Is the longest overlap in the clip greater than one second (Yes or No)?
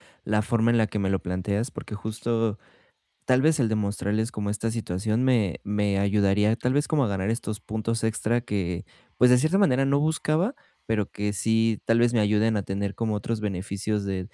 No